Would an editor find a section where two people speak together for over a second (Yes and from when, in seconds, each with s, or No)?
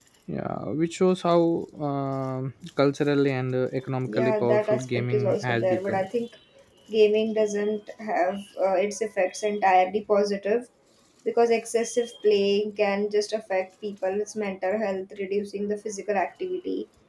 Yes, from 4.0 s